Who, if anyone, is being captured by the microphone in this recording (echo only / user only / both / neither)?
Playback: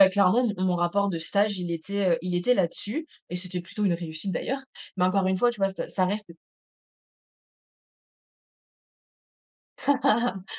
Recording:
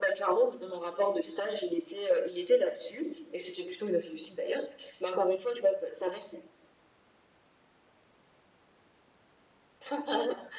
echo only